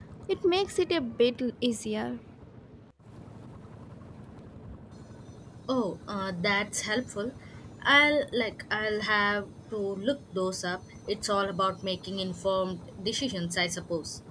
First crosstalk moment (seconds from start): none

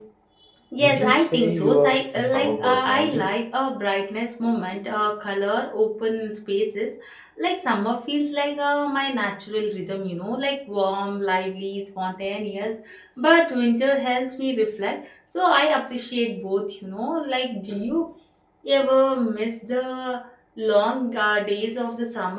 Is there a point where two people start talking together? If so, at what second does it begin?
1 s

